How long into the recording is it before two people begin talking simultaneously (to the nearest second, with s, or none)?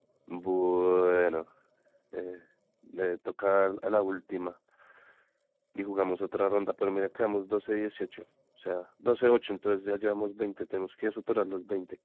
none